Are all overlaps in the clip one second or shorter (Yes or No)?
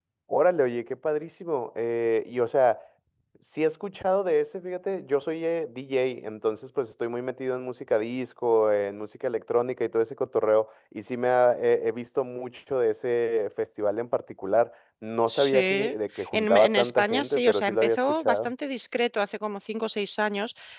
No